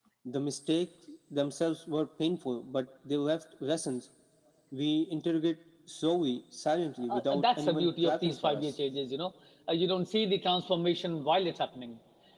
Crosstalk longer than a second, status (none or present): present